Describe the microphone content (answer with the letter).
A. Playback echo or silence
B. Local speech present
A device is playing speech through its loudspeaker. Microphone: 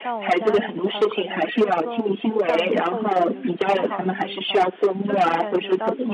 B